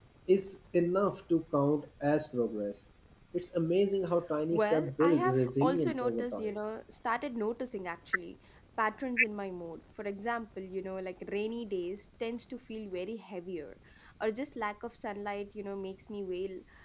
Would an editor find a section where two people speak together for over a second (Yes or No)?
Yes